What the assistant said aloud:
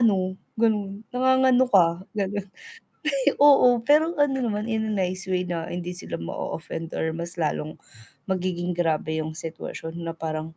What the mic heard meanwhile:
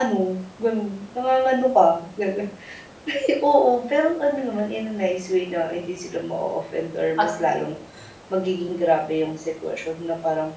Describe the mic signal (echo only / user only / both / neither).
both